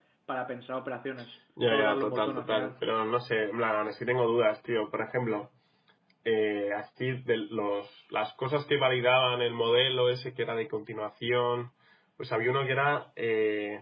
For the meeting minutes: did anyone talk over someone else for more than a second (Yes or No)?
Yes